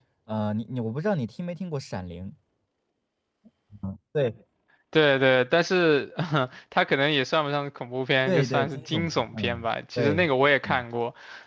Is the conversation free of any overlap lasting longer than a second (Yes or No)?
No